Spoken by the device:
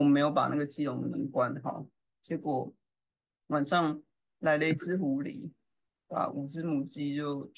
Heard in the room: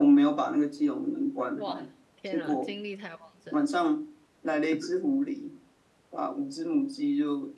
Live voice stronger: No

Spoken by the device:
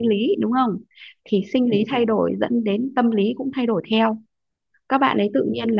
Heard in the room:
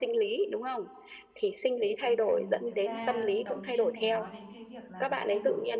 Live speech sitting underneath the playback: Yes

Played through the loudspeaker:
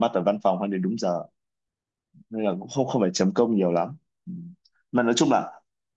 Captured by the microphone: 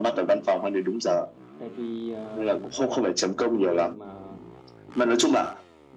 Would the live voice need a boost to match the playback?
Yes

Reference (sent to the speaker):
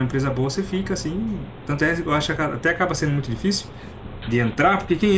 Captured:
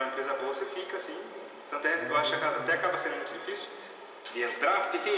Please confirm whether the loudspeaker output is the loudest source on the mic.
Yes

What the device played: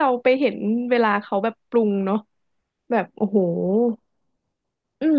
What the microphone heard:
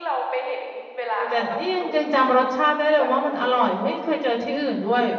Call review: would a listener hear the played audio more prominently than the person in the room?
No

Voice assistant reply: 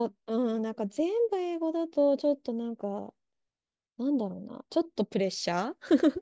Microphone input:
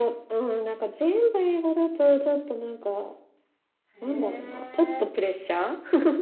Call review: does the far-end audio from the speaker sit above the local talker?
Yes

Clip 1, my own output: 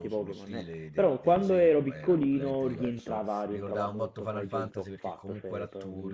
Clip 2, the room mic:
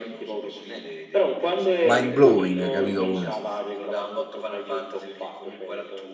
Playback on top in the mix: No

